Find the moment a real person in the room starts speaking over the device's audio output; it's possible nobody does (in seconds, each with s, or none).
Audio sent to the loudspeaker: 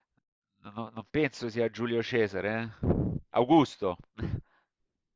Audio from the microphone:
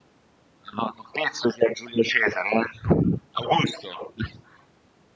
none